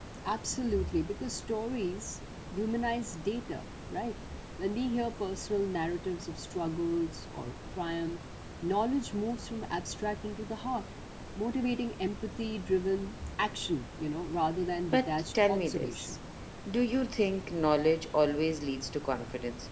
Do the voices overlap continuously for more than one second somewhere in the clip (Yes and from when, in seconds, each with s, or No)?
Yes, from 14.9 s